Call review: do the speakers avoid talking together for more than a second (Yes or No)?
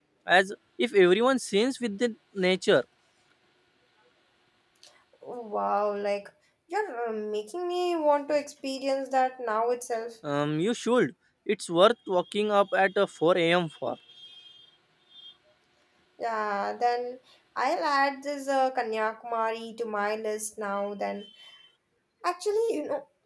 Yes